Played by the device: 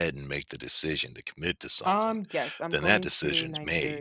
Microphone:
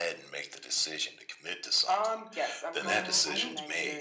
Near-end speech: present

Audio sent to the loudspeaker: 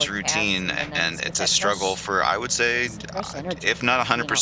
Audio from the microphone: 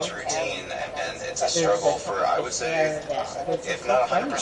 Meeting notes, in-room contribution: present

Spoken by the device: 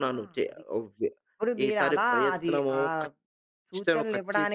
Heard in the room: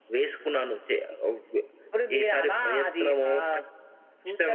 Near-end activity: none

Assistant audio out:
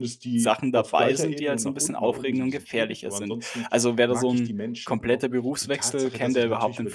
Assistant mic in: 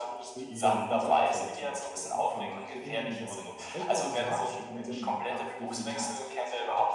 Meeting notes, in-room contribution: present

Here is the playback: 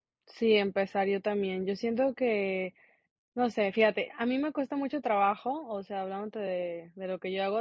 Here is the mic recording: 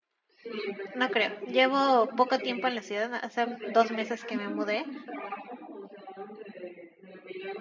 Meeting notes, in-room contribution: present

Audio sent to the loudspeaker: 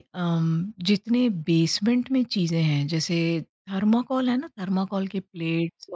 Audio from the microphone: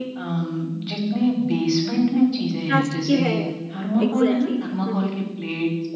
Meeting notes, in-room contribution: present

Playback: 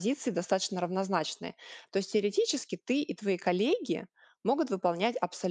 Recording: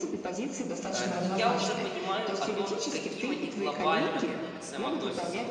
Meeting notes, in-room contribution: present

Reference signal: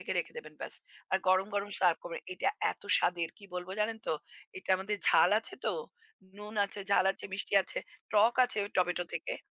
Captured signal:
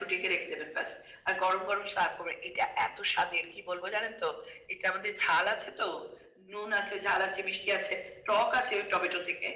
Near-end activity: none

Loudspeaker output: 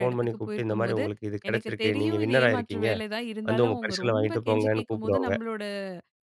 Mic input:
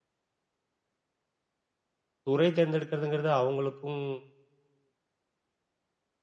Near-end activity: present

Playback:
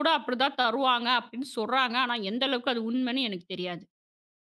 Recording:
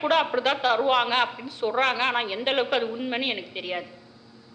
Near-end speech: none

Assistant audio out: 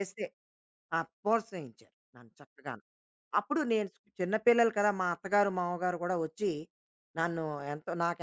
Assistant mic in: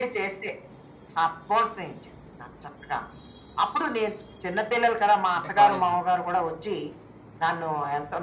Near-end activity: present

